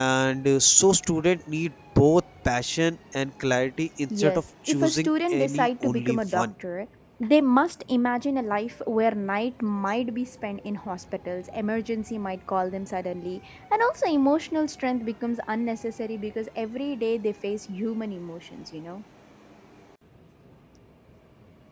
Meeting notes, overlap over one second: present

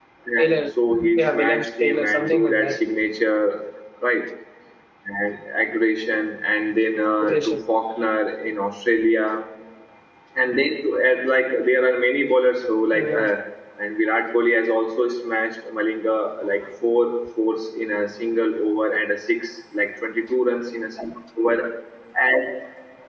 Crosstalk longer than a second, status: present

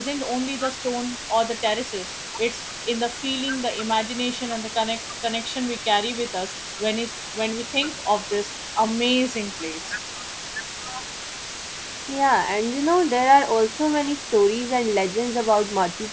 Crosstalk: none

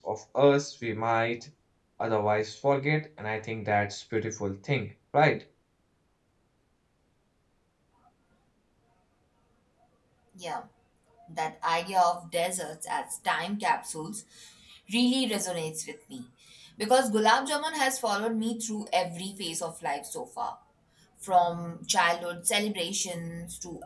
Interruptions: none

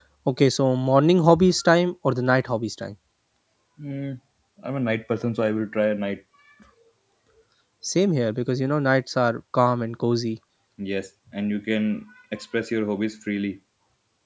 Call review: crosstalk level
none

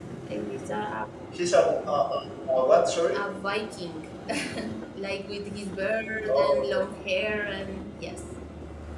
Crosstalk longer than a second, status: none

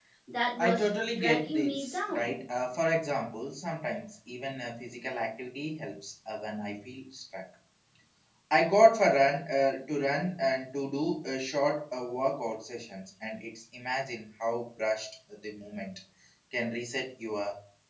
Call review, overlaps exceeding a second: present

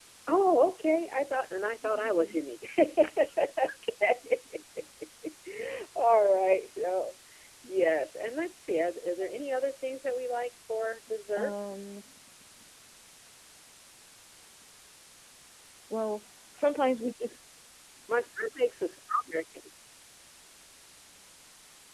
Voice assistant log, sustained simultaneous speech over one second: none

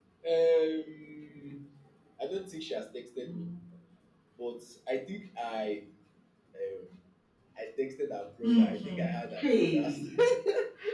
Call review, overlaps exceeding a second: present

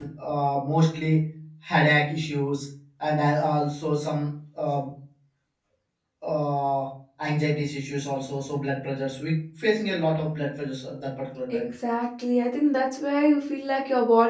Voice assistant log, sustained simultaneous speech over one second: none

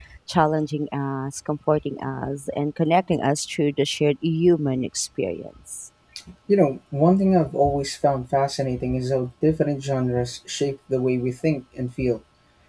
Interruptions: none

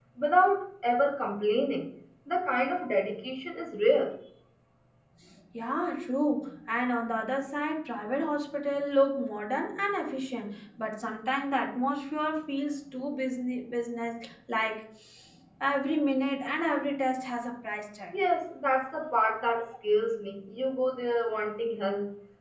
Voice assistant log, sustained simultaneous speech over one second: none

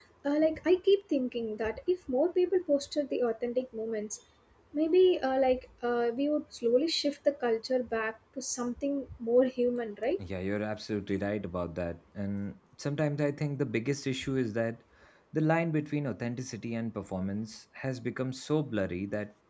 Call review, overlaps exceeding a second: none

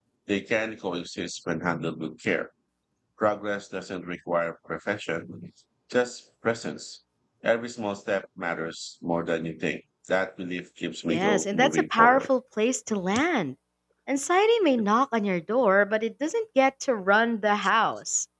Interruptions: present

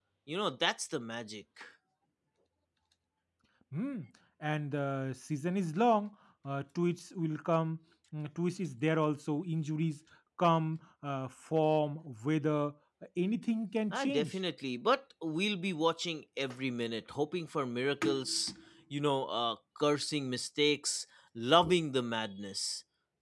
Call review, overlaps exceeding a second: none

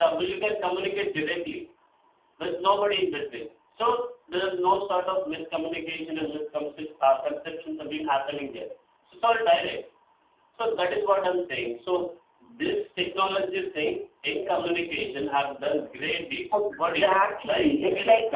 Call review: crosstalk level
present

